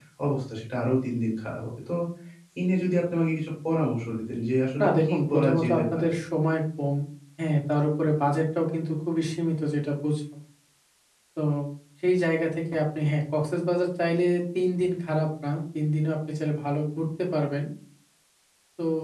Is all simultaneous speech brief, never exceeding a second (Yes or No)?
No